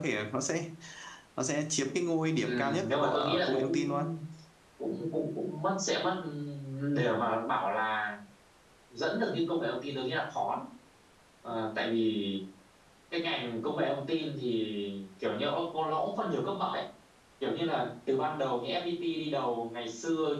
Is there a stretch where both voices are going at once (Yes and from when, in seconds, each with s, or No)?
Yes, from 2.4 s